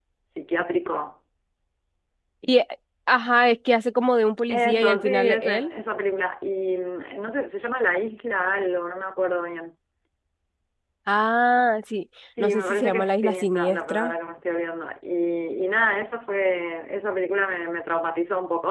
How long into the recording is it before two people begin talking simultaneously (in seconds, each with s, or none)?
4.5 s